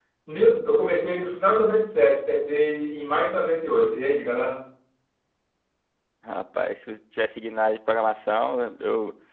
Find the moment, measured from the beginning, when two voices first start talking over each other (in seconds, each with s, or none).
none